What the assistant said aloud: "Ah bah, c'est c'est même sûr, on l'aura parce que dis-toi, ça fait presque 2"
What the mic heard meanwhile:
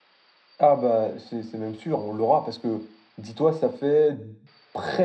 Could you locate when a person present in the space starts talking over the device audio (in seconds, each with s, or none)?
none